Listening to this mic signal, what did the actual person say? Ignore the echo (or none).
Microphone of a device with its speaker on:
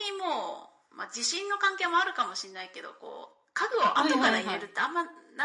はいはいはい。